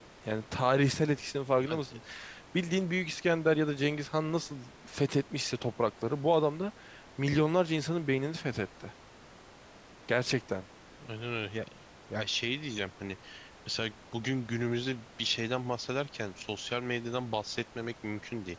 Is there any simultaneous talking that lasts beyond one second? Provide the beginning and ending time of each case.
none

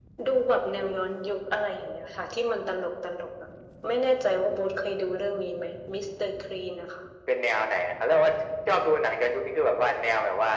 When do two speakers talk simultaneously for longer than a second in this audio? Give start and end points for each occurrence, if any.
none

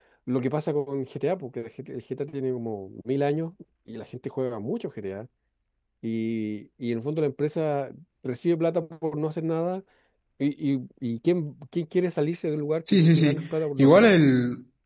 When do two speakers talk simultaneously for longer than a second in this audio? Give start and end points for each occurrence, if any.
12.9-14.2

